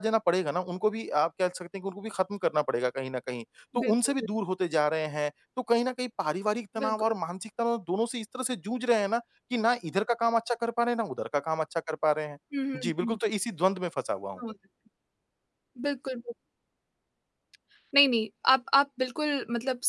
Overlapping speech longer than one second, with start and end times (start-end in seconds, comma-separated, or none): none